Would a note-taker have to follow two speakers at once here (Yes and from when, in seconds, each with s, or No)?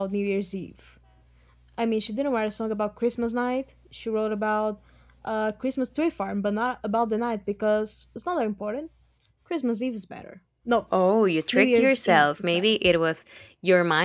Yes, from 11.5 s